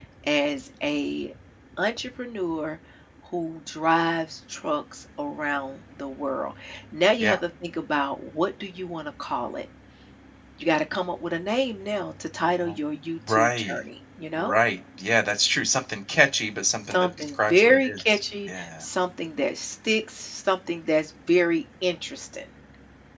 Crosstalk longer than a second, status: present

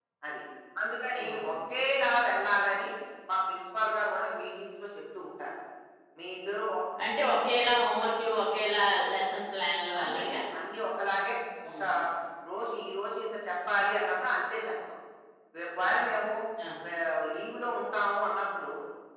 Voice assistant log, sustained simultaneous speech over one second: none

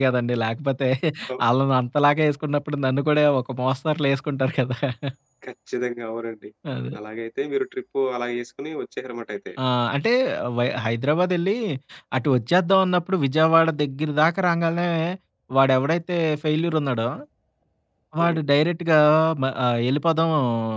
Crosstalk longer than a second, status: none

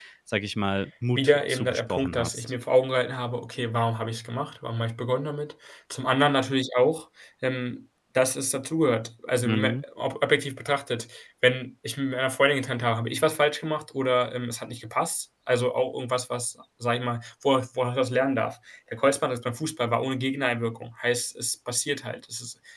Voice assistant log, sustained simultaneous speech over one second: present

